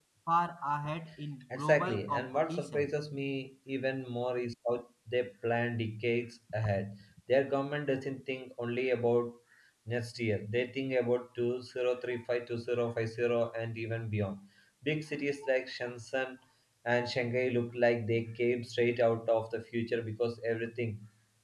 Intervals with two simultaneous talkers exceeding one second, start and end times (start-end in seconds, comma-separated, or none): 1.6-2.9